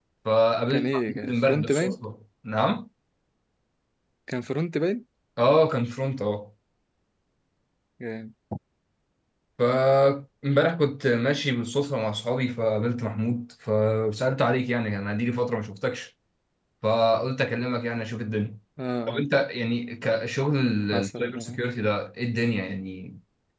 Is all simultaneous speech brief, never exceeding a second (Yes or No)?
No